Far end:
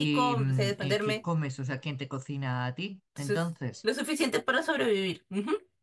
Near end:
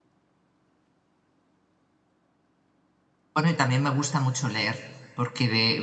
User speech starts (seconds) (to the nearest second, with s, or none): 3 s